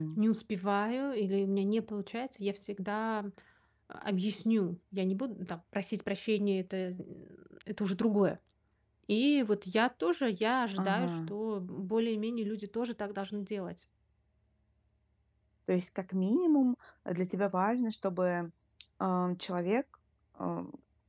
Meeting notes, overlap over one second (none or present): none